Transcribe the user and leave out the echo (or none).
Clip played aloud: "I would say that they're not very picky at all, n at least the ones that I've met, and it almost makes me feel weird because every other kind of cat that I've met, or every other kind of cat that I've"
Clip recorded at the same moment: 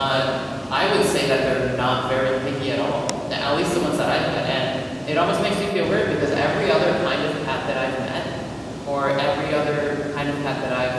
none